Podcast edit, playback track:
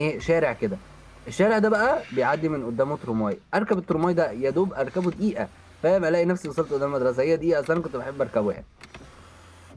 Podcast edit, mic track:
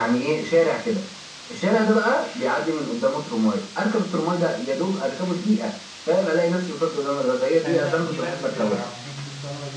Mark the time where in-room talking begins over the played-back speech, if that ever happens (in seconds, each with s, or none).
7.6 s